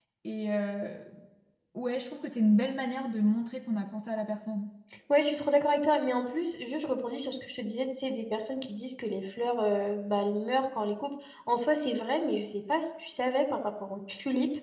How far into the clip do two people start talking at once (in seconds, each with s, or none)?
none